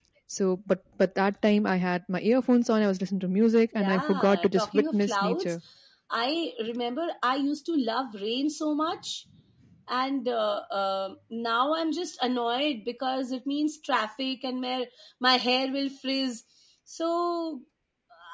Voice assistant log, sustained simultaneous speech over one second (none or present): present